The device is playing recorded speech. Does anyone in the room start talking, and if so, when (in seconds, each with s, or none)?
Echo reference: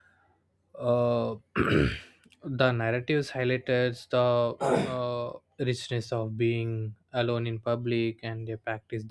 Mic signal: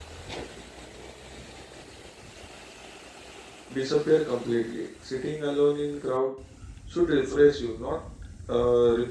3.7 s